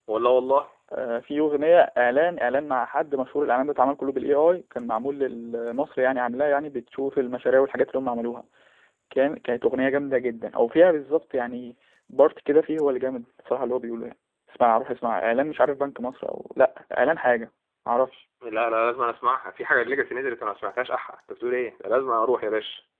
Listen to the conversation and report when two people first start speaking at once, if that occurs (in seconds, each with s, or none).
none